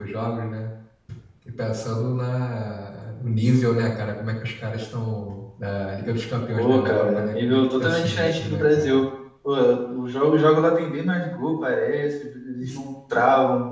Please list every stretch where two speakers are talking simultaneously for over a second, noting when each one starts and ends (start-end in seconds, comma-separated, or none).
6.5-9.0